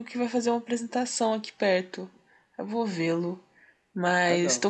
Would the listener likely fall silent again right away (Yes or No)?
Yes